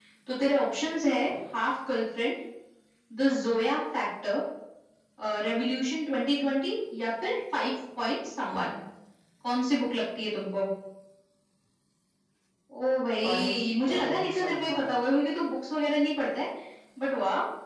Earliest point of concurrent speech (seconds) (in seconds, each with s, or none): 13.2 s